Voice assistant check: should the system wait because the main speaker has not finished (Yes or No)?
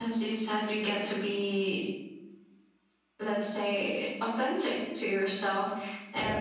Yes